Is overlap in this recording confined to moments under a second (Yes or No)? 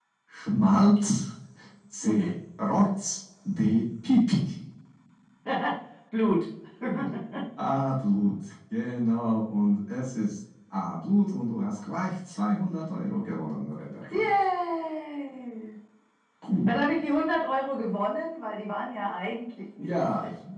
Yes